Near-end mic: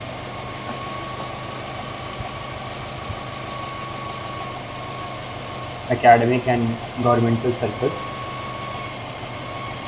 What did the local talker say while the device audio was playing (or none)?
academic, and governmental circles.